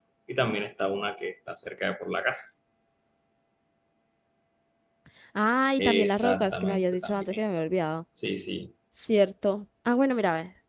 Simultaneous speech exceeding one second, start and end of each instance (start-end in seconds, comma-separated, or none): 5.8-7.4